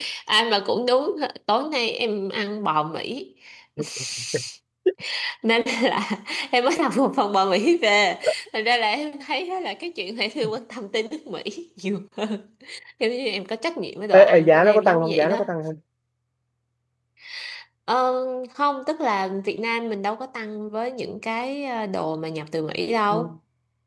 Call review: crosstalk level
present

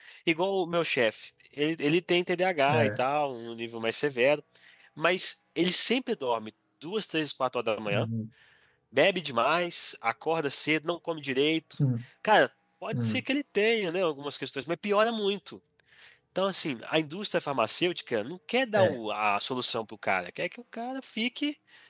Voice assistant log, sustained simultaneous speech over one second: none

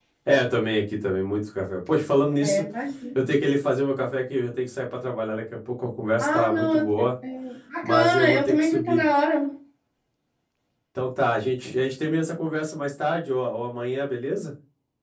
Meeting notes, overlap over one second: present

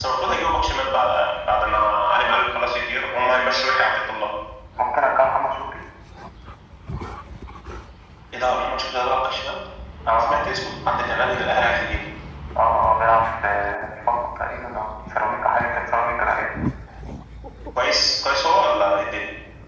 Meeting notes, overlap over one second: none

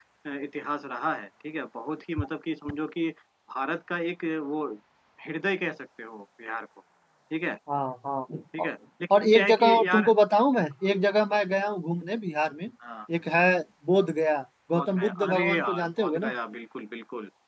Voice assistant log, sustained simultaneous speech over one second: present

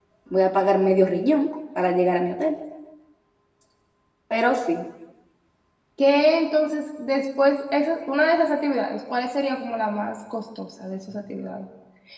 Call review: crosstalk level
none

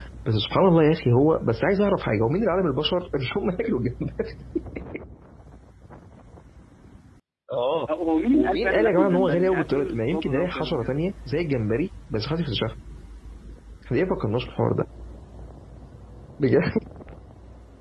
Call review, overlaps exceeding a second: present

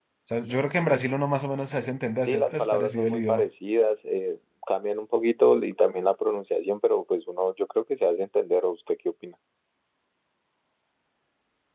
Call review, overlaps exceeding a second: present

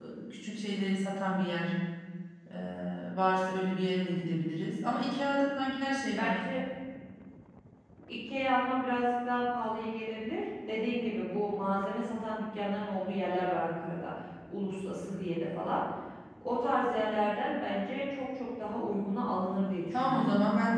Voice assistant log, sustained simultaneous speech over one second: none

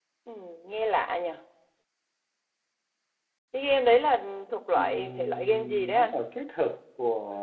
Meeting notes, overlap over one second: present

